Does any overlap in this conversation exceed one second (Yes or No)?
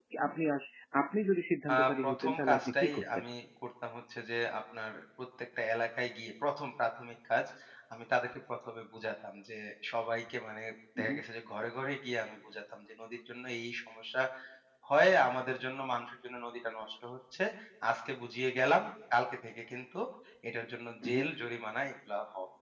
Yes